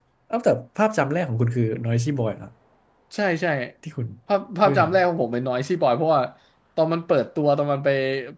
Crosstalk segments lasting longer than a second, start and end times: none

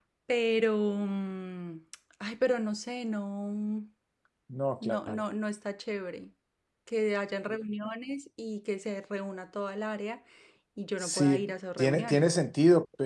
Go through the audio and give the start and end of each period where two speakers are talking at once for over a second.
11.0-12.3

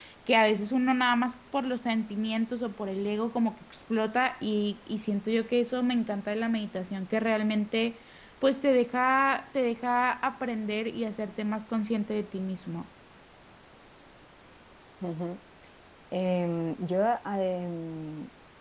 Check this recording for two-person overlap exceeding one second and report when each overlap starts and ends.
none

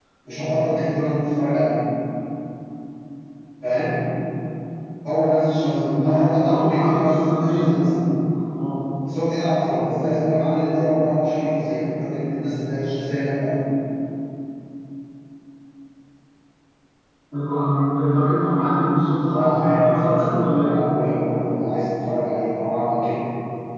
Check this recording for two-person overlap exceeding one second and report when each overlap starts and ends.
5.7-7.7, 19.3-20.8

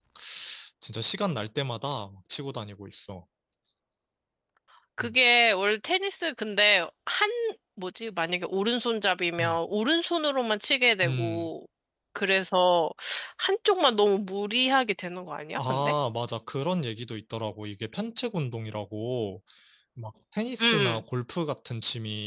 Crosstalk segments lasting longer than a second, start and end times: none

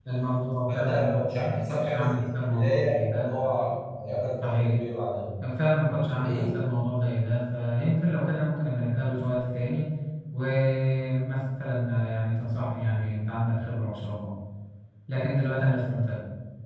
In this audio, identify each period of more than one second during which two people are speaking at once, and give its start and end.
0.7-3.3

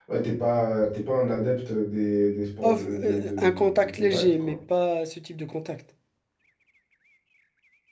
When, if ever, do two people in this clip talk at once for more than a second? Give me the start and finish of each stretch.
2.6-4.6

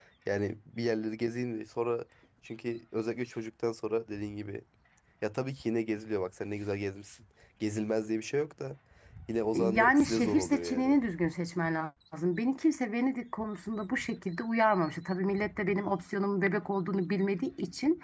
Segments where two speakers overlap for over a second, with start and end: 9.5-10.9

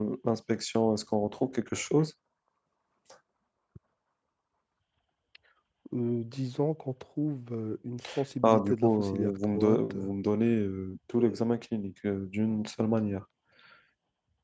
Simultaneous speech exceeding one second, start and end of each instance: 8.4-10.0

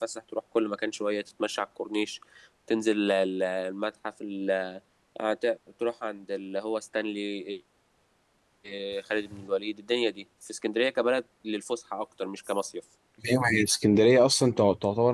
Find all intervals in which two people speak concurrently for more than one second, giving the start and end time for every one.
none

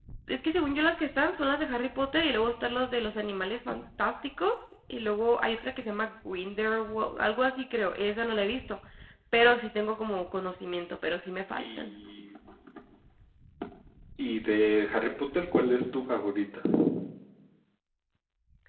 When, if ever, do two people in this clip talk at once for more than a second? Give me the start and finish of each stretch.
none

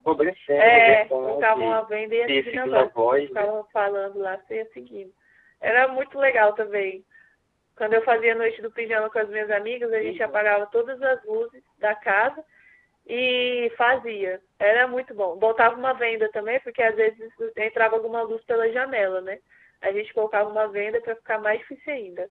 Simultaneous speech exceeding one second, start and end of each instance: 0.6-1.8, 2.2-3.5

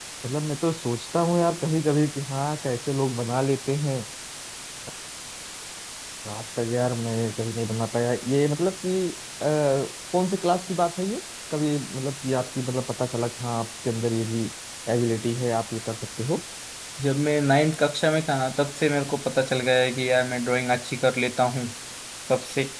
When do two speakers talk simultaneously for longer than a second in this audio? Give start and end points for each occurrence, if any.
none

